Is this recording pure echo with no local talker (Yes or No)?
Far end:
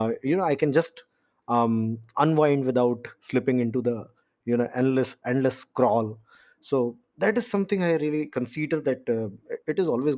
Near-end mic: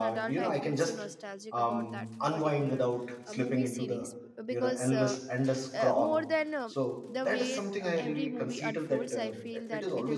No